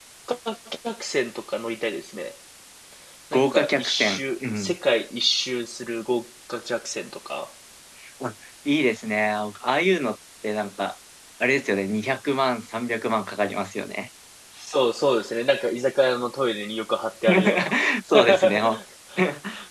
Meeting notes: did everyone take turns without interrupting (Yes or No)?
No